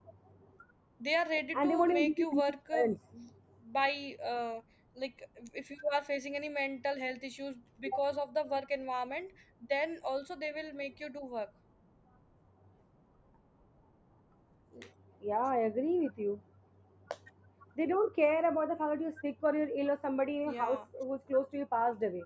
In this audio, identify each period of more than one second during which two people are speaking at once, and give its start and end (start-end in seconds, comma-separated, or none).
1.5-2.9